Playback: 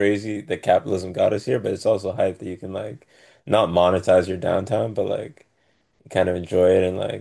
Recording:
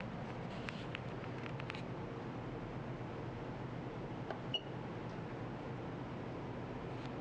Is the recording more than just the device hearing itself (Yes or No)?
No